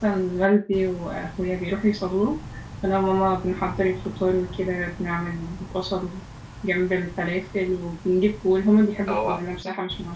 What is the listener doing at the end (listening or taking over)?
listening